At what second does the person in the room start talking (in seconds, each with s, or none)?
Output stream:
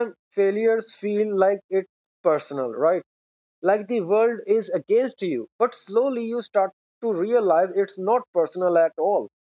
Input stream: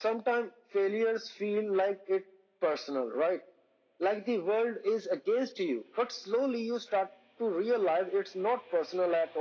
none